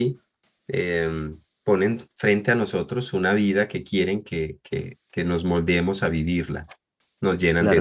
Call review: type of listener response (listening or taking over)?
taking over